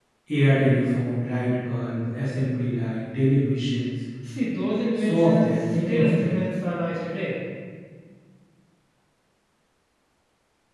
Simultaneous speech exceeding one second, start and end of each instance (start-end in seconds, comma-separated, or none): 5.0-6.3